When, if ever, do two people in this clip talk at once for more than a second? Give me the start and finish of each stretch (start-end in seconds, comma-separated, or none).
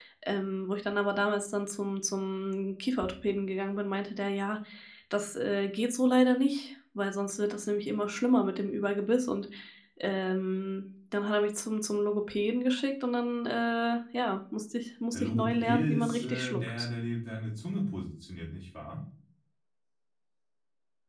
15.1-16.9